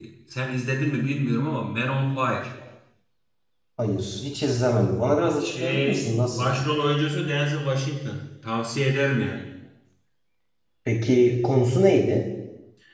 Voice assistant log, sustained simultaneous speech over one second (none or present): present